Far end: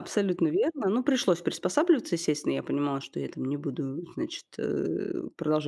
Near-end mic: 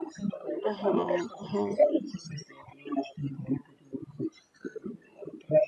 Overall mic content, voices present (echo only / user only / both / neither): both